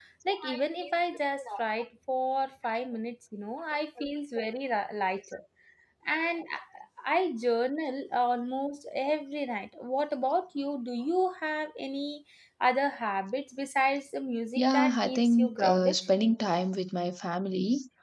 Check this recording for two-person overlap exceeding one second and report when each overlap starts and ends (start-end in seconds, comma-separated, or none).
14.6-16.0